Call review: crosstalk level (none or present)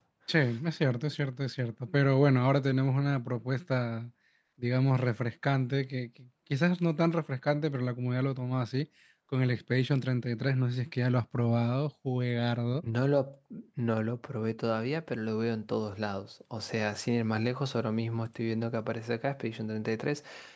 none